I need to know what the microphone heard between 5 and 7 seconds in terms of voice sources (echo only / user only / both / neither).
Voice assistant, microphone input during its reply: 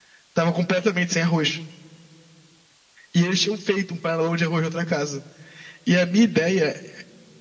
user only